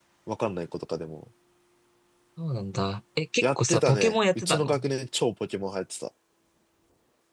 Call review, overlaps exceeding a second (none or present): present